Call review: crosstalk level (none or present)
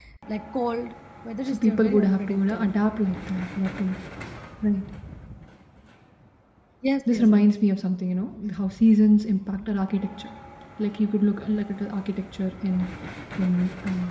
present